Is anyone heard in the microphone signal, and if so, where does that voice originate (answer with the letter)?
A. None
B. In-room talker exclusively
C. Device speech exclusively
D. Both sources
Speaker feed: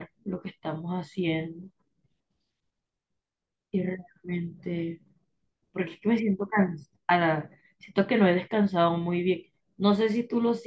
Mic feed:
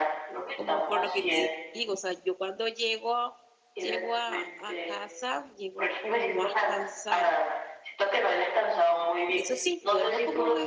D